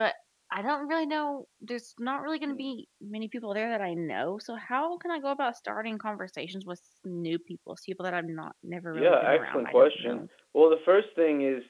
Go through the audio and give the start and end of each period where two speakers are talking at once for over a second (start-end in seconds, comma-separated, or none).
8.9-10.2